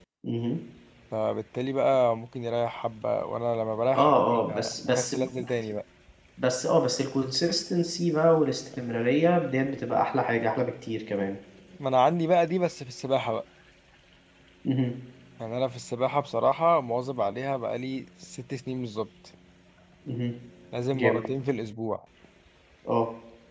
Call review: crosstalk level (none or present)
present